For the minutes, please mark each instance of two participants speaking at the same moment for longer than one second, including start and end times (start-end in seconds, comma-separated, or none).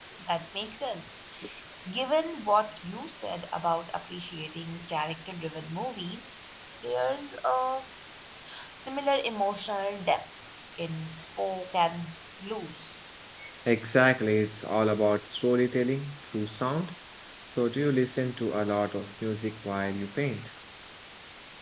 none